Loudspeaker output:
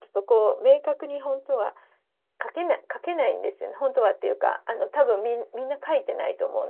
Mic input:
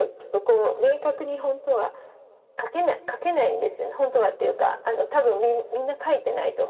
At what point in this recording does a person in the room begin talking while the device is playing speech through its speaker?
none

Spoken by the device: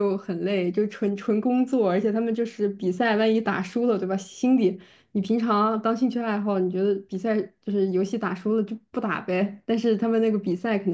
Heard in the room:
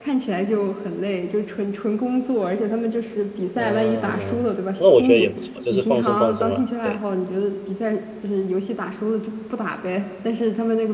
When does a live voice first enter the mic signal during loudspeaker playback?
4 s

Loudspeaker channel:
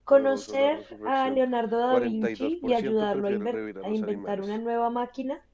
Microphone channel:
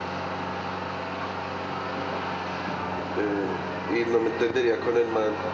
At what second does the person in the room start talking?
3 s

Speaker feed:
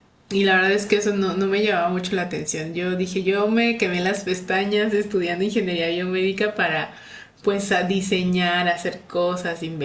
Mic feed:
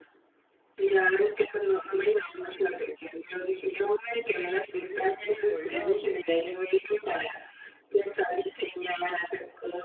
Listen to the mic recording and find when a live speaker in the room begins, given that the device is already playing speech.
5 s

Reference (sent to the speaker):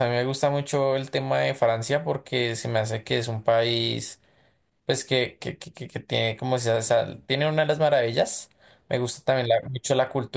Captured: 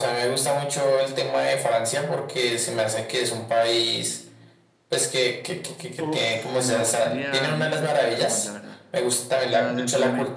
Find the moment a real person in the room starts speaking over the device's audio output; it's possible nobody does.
6 s

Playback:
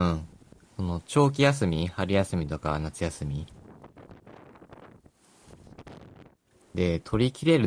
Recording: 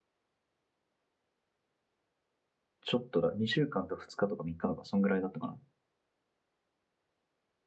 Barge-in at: 3 s

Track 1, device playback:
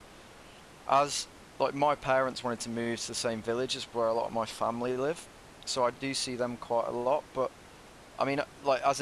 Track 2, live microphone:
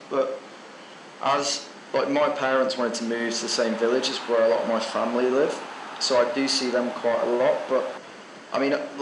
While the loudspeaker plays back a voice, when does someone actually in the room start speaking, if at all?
none

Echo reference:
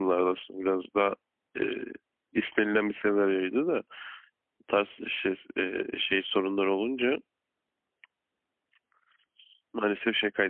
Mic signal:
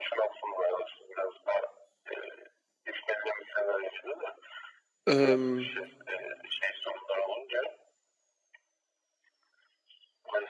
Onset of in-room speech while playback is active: 5 s

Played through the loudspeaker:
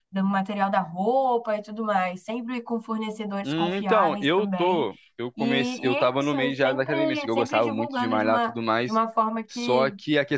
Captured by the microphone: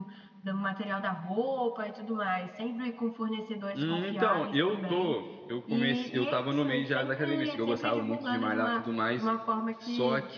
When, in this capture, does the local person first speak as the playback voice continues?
none

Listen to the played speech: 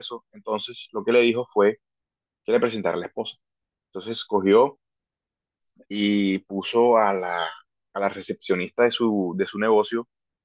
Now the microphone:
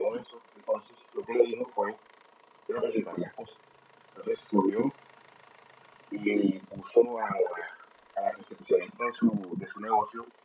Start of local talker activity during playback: none

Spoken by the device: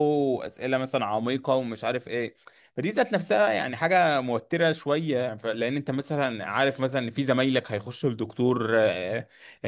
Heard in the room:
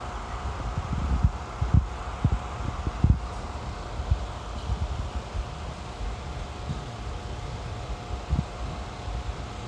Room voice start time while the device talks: none

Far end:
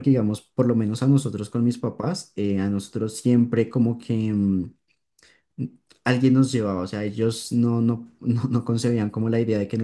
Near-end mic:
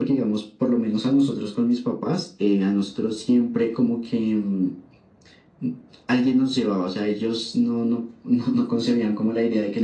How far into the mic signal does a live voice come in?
none

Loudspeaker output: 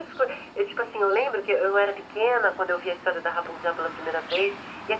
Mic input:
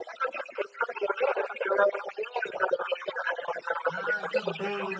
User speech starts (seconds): 4 s

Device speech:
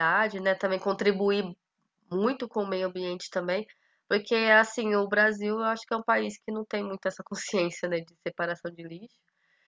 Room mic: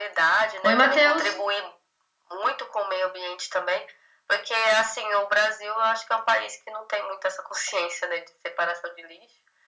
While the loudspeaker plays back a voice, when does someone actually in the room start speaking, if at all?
1 s

